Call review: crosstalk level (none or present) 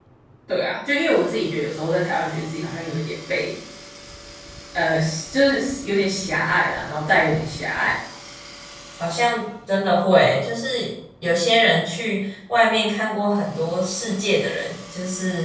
none